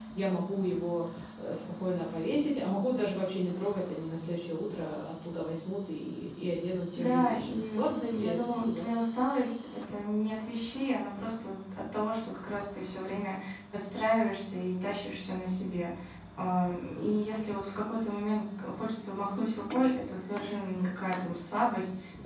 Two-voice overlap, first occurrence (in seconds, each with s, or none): 6.9 s